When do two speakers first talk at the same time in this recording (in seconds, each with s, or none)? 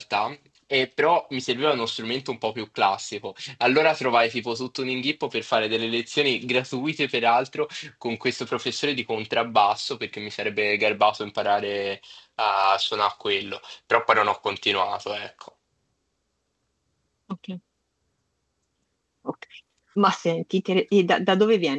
none